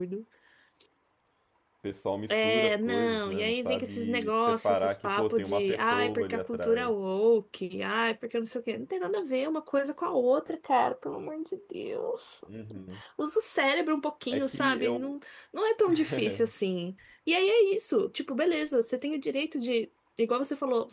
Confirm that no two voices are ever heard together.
No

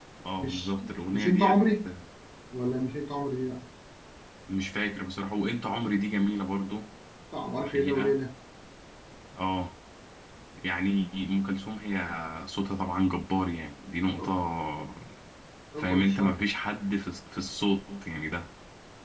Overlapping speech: Yes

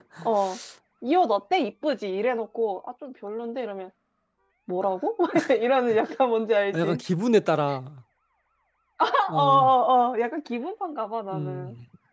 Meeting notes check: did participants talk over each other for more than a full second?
No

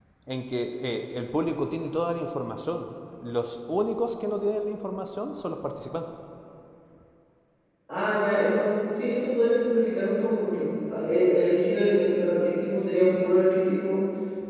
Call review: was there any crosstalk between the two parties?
No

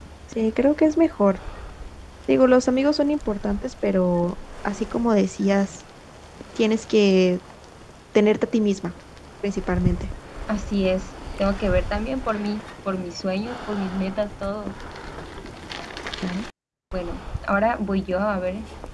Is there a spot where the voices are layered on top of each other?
No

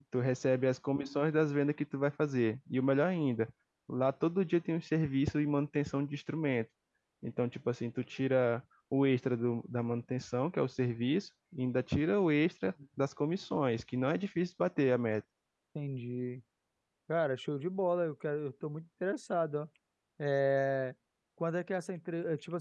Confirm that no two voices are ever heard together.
Yes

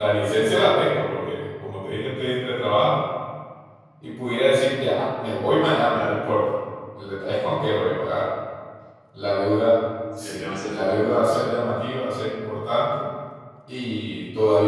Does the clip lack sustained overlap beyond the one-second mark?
No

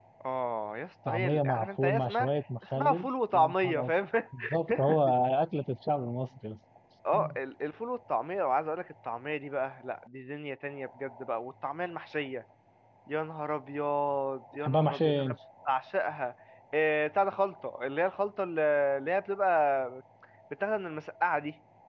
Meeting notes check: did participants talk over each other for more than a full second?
Yes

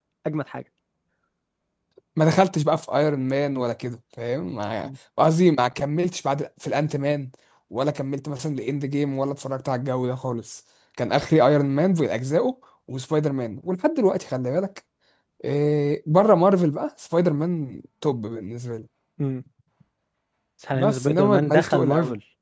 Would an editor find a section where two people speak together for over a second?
Yes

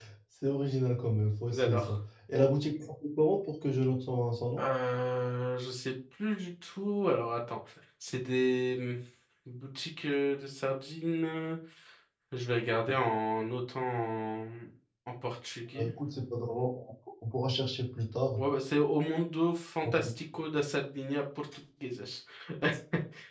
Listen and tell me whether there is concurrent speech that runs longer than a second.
No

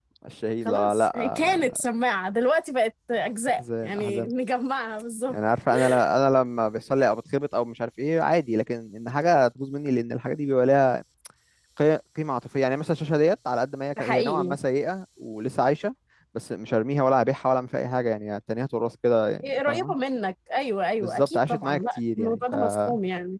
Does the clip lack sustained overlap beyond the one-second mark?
No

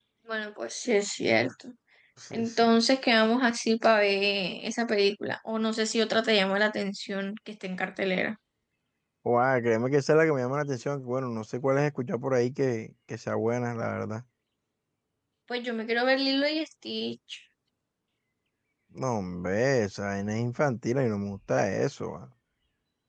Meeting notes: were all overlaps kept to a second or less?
Yes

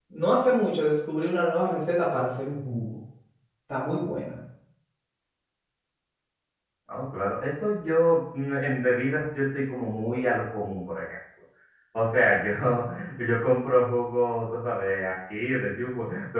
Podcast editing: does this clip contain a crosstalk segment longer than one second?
No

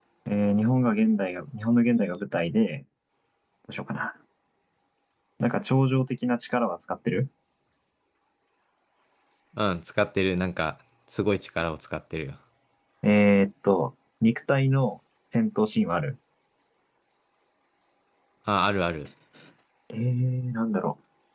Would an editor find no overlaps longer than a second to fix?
Yes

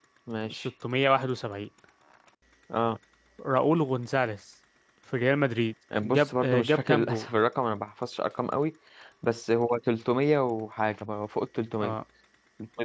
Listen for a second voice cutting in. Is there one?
Yes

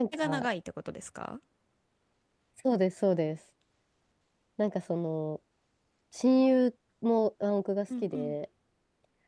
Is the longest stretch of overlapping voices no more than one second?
Yes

